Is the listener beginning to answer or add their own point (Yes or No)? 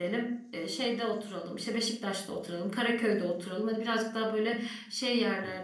No